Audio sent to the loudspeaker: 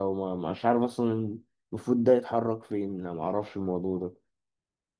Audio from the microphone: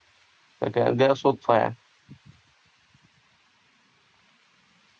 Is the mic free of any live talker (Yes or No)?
No